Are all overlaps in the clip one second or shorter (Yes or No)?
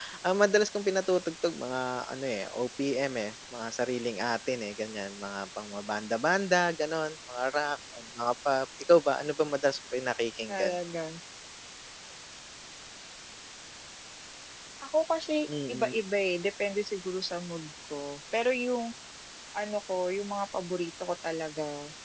Yes